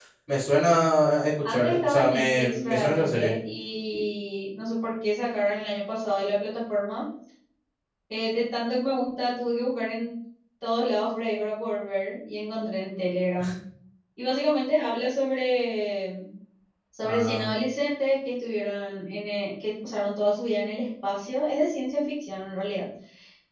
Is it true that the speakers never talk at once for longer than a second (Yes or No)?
No